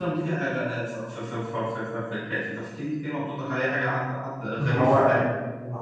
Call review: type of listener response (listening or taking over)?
taking over